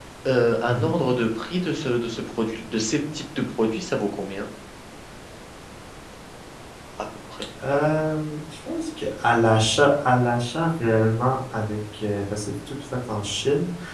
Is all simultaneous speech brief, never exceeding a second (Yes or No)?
Yes